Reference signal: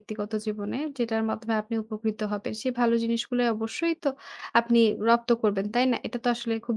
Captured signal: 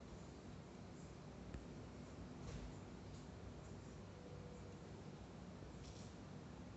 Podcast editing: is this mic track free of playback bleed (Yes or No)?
Yes